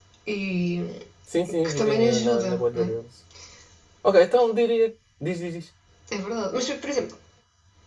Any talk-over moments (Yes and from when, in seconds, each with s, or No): Yes, from 1.6 s